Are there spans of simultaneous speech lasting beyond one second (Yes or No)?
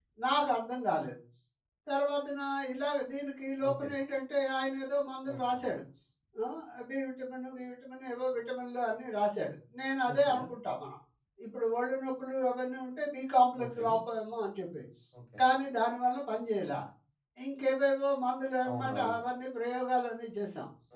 No